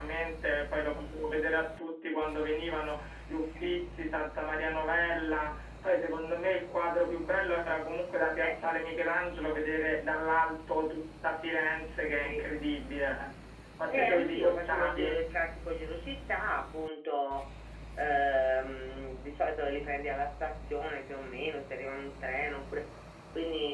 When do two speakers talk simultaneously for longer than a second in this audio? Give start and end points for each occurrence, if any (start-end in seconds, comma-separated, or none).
13.9-15.2